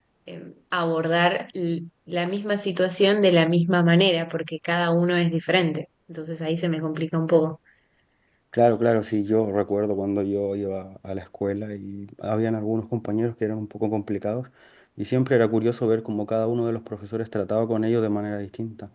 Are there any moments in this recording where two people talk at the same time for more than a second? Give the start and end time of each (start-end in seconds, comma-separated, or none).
none